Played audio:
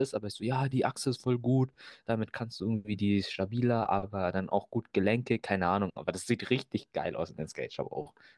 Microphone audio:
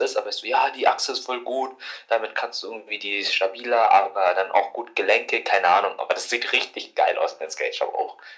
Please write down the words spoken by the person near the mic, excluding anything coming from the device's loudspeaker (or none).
none